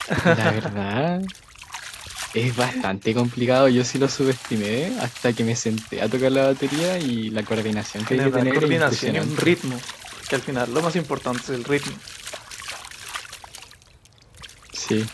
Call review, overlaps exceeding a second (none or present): present